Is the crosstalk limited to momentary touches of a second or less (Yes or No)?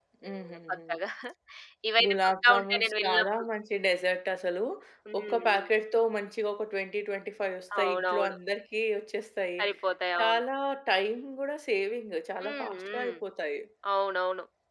No